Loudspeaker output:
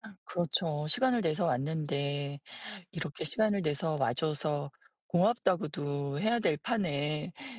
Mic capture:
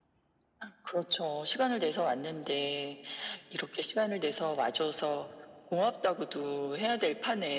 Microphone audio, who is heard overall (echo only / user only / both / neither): echo only